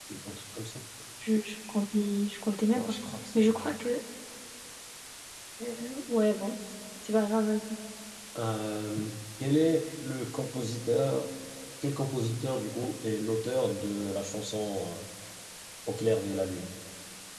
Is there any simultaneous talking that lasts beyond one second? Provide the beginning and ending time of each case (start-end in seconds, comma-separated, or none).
none